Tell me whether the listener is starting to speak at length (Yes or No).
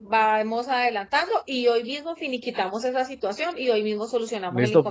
Yes